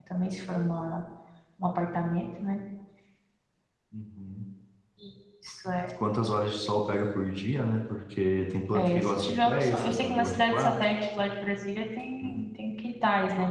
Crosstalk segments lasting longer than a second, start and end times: 8.8-10.9

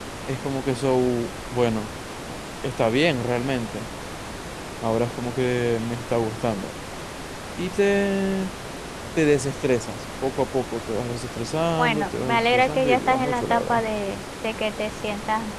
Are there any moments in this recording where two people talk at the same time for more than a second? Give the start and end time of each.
11.8-13.8

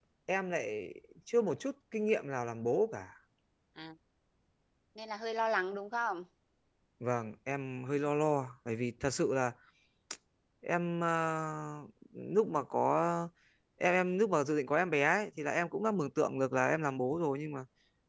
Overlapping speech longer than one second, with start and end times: none

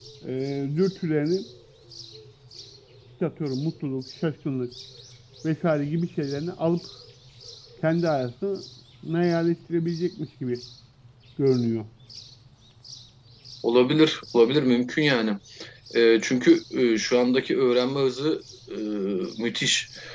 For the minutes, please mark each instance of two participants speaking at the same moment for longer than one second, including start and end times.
none

